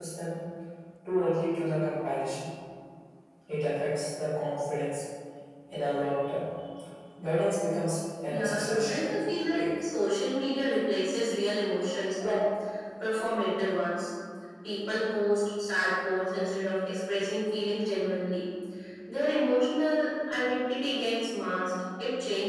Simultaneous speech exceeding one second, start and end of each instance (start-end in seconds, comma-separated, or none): 8.3-9.8